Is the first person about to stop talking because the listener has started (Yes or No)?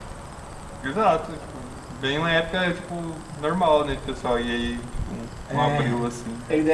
Yes